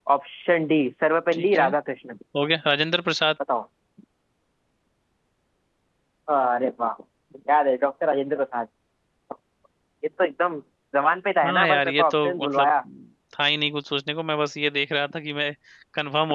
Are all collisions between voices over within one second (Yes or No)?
No